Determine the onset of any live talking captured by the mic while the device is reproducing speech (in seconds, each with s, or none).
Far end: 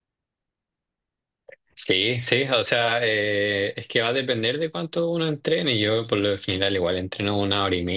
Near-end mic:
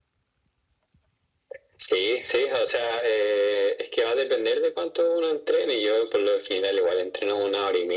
none